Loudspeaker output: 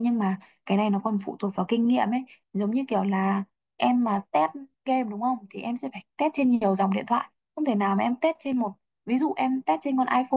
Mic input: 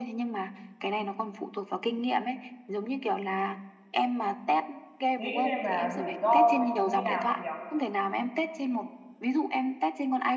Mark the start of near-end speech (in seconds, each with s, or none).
5.2 s